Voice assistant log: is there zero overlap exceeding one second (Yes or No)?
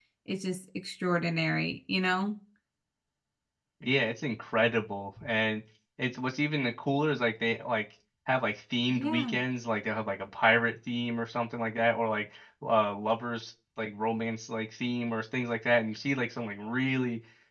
Yes